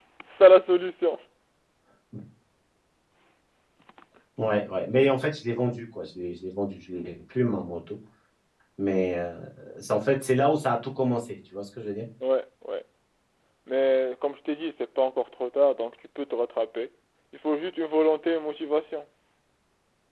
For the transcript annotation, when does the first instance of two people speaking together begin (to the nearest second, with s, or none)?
none